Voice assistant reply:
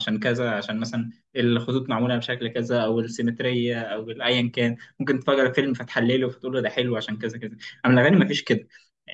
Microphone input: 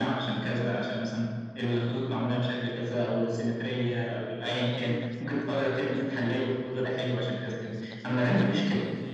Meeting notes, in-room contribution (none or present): present